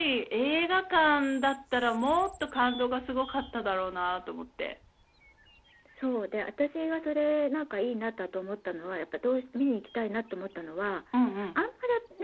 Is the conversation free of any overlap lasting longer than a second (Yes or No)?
Yes